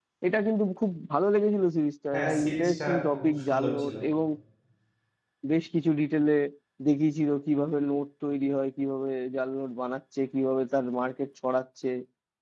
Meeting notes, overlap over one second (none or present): present